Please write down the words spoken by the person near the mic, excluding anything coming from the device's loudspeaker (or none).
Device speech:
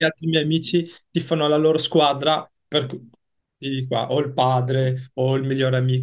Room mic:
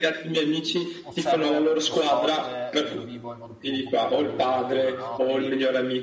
osservo lo sport eh, e lo vivo in modo più, un po' più adulto e maturo, no? Quindi